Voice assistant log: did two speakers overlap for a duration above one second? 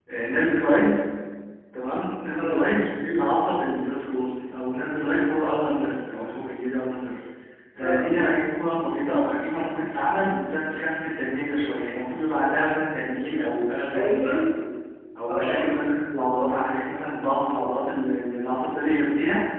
No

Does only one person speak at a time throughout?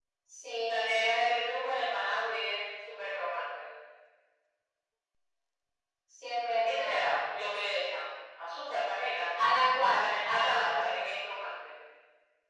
No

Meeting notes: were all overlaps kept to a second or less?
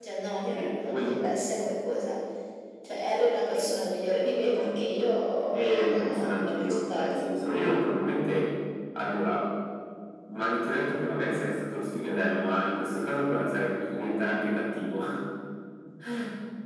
No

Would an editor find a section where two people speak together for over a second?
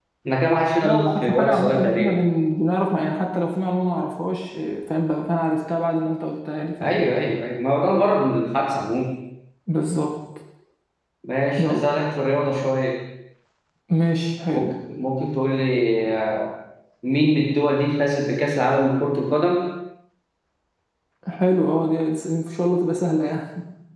Yes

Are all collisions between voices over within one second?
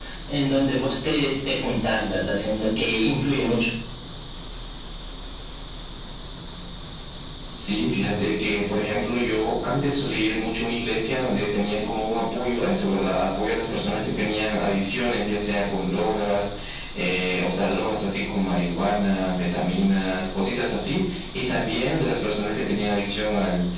Yes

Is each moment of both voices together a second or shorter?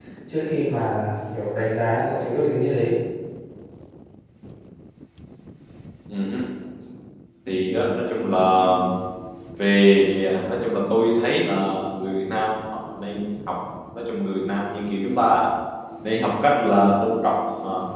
Yes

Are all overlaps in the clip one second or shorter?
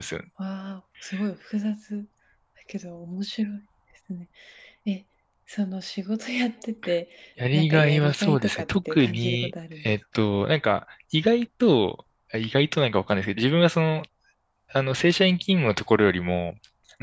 No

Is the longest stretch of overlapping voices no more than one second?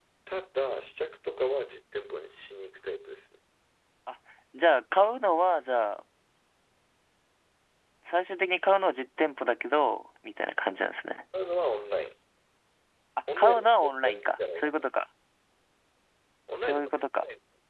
No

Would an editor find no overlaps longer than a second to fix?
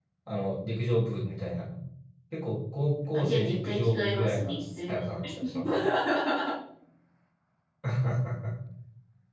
No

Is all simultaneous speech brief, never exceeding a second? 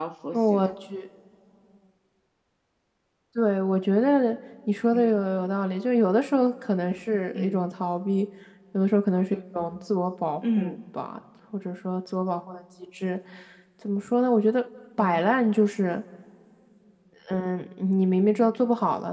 Yes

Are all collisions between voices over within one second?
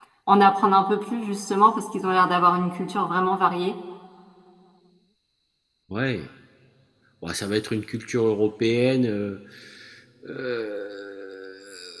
Yes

